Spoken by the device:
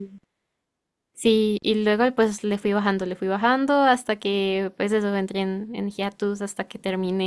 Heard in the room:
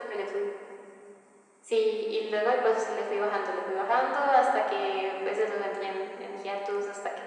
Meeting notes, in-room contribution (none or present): none